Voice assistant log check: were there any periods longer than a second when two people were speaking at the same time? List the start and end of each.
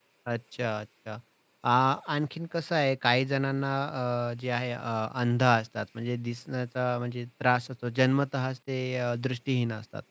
none

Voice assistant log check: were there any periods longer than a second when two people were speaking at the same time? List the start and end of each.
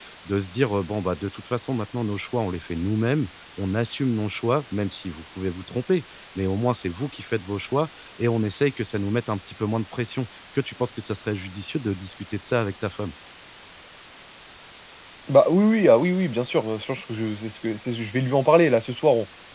none

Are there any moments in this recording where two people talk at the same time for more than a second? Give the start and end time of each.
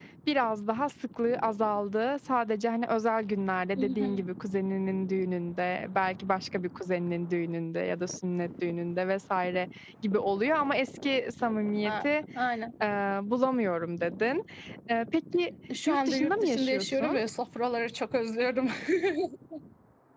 15.9-17.1

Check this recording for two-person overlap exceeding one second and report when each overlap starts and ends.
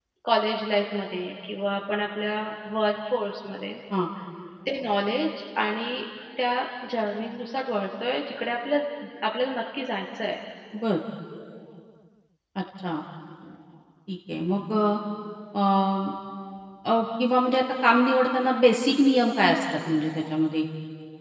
none

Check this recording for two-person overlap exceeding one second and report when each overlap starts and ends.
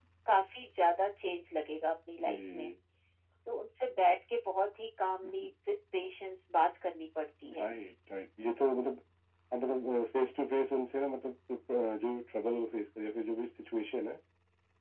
none

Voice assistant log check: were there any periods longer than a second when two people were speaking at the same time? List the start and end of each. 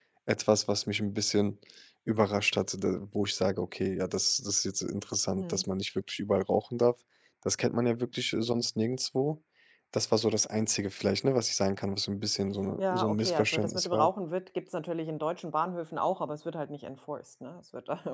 12.8-14.1

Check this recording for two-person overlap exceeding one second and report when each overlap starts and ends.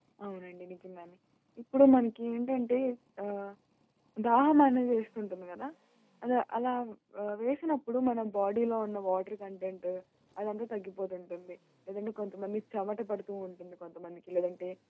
none

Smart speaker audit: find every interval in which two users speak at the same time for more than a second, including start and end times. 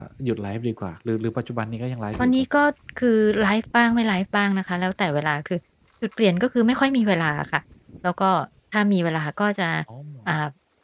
none

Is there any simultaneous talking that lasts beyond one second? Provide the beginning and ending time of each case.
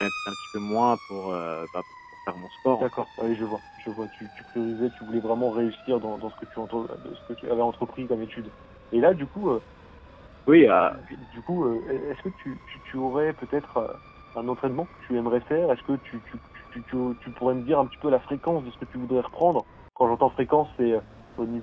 none

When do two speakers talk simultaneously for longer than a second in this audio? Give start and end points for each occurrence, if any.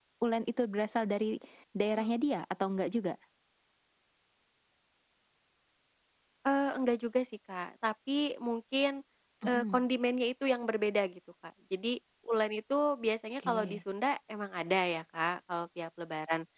none

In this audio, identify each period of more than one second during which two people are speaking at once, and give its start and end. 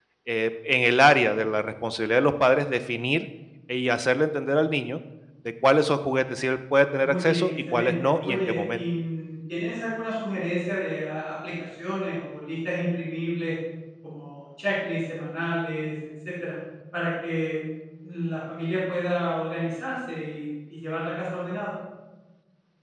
7.0-8.8

